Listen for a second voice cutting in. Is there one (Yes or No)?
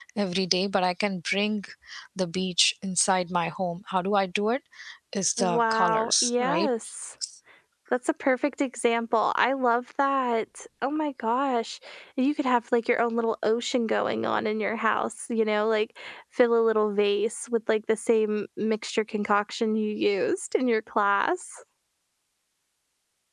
Yes